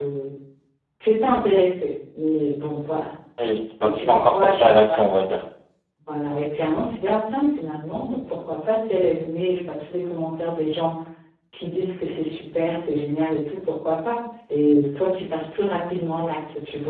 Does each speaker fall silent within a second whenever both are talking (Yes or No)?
No